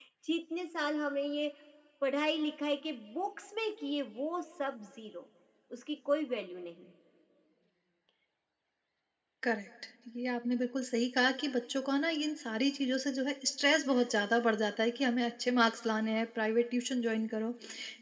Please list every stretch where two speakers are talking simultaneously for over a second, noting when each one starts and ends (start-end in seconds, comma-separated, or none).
none